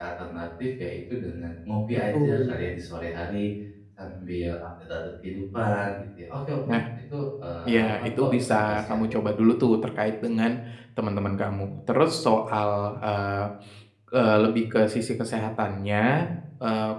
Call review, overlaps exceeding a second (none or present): present